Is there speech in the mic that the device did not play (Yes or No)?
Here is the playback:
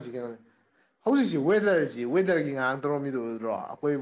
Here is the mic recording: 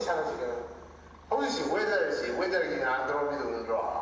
No